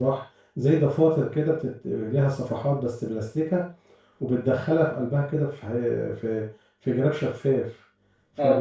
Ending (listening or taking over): taking over